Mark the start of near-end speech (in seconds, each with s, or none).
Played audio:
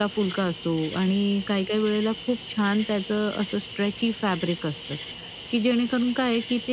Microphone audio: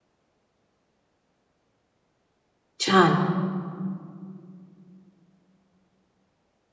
2.8 s